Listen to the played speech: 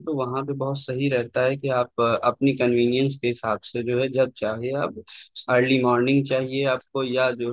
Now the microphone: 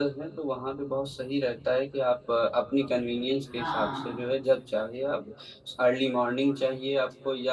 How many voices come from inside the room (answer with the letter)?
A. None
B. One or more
B